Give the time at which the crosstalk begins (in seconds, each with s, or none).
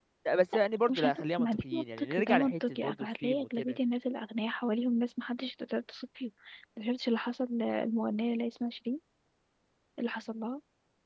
0.9 s